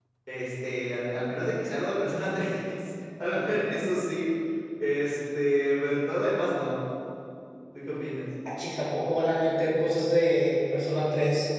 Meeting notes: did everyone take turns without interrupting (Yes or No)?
Yes